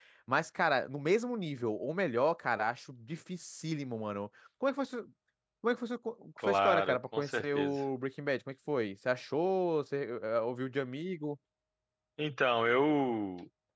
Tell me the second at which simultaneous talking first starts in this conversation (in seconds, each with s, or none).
6.5 s